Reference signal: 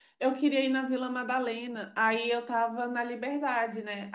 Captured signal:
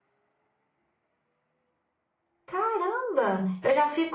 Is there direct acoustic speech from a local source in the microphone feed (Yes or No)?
Yes